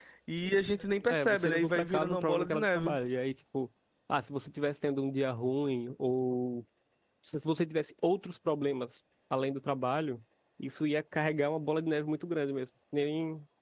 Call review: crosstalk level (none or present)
present